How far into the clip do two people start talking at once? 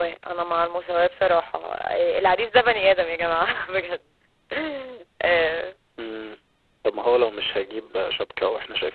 none

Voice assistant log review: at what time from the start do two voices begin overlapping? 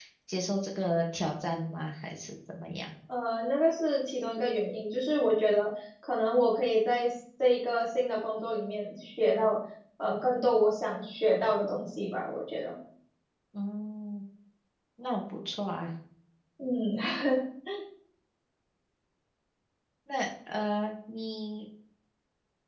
none

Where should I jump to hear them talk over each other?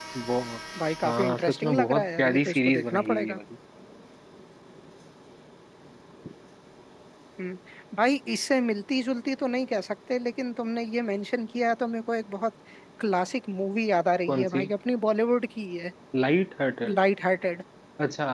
1.1 s

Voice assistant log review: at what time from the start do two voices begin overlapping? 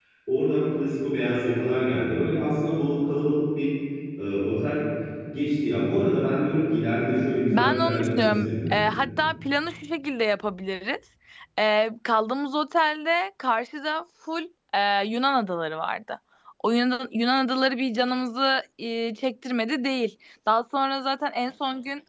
7.5 s

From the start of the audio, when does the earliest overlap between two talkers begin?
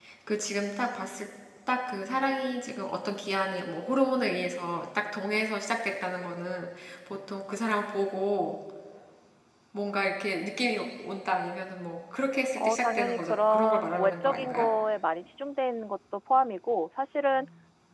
12.6 s

